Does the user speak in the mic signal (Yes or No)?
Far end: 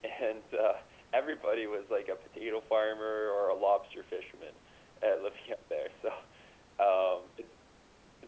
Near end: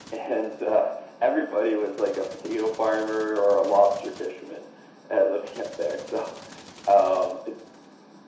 No